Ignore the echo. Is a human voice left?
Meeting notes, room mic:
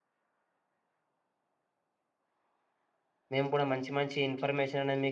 Yes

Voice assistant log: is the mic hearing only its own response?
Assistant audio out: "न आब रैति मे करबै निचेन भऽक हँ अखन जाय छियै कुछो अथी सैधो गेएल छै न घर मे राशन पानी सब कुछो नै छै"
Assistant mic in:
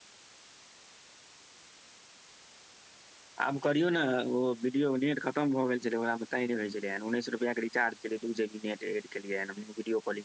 No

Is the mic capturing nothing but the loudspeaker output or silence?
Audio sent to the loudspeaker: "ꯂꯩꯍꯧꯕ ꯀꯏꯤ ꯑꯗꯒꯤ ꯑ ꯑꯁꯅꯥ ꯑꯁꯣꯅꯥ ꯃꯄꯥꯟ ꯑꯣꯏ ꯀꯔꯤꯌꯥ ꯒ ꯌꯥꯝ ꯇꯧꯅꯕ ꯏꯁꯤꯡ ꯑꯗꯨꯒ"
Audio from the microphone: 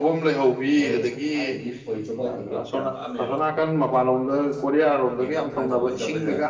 No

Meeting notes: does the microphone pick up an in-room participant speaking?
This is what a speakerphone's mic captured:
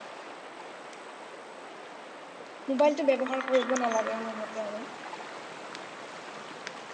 Yes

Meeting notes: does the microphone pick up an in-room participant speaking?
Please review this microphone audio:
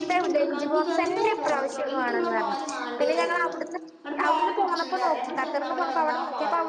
Yes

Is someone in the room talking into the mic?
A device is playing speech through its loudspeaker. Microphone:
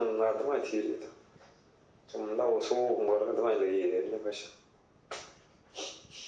No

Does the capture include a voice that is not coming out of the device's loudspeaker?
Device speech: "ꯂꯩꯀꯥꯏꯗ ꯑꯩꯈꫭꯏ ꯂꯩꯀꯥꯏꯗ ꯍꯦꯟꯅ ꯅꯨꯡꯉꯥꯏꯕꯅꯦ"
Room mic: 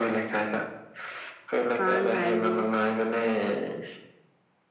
Yes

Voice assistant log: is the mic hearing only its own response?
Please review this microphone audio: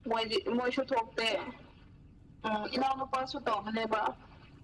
Yes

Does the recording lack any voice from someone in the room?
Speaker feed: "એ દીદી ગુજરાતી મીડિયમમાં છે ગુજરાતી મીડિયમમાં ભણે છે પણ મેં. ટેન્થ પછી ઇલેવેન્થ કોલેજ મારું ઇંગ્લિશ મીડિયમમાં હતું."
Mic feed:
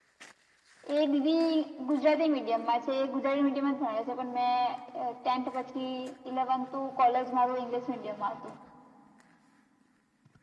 Yes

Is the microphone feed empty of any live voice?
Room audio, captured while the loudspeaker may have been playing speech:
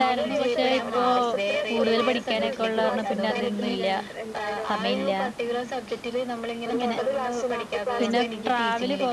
No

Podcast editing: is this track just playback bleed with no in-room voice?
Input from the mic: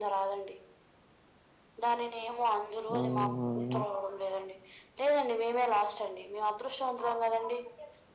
No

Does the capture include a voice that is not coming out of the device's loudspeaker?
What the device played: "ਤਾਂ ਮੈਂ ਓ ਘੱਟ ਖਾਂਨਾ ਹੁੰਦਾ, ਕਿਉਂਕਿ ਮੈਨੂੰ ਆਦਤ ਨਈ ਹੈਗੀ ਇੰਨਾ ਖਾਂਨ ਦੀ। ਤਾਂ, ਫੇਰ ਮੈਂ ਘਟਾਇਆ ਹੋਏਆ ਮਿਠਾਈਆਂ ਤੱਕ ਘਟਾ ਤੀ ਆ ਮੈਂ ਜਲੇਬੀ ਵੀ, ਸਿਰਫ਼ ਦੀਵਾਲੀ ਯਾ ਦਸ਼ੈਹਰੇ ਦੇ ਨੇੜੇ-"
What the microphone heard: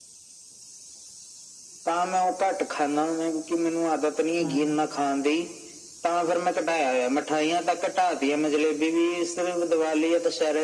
Yes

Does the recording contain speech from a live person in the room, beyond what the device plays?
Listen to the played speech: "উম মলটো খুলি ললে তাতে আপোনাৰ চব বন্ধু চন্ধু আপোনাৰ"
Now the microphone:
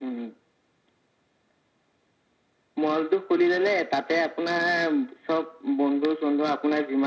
No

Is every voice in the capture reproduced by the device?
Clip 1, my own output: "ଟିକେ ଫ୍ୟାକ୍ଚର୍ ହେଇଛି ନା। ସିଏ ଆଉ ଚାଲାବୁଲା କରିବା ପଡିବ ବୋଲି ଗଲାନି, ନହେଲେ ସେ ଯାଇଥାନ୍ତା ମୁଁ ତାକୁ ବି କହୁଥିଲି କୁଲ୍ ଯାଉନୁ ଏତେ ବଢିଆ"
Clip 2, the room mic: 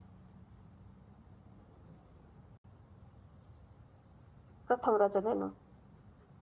No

